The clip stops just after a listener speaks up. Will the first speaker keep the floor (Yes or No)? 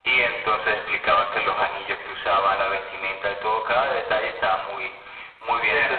No